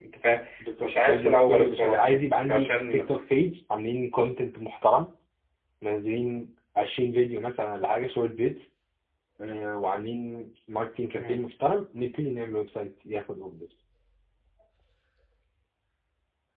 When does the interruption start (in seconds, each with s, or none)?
0.8 s